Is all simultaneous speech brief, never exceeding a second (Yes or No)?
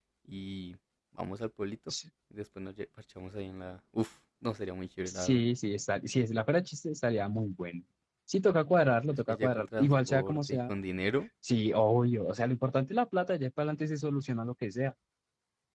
No